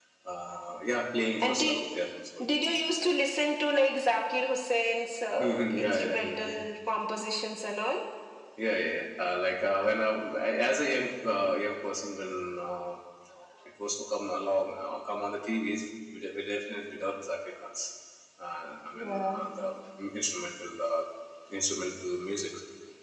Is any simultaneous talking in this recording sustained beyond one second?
Yes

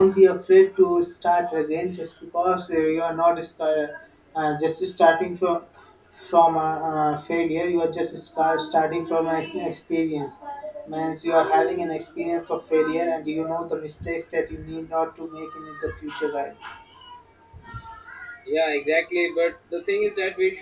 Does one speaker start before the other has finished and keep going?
No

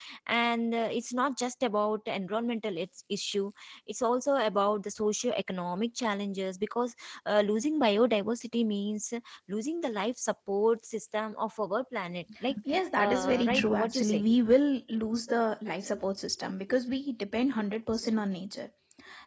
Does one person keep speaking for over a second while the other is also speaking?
Yes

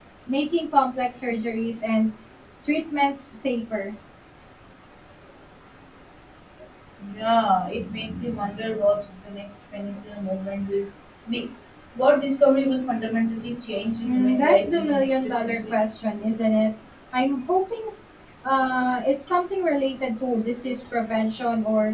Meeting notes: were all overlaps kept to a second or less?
No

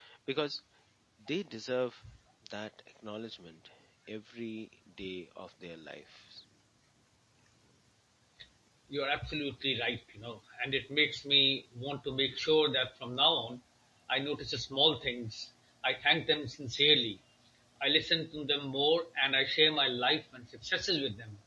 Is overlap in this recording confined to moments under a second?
Yes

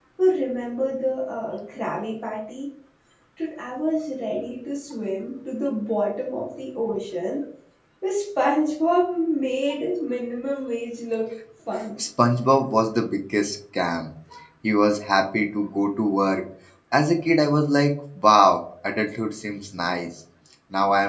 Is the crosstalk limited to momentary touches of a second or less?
Yes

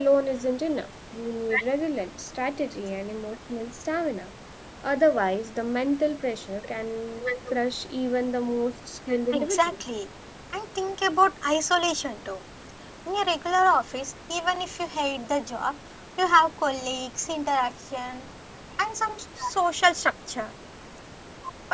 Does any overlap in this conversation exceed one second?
No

